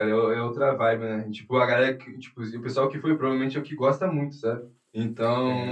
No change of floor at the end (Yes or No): Yes